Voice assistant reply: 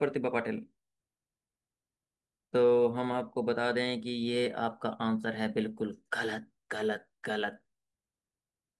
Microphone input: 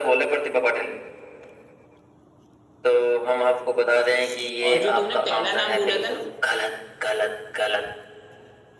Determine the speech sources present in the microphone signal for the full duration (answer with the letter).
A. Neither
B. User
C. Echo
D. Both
D